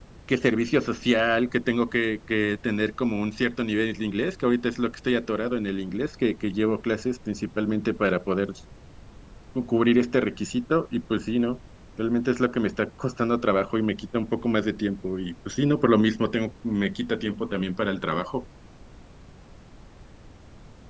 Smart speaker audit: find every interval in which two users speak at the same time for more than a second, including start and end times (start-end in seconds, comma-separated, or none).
none